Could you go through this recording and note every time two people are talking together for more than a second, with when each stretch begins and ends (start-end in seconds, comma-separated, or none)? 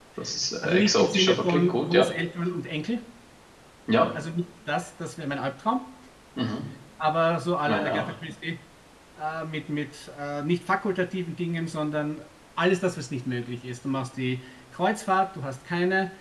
0.6-2.1